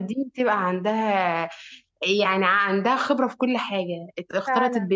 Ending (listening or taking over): listening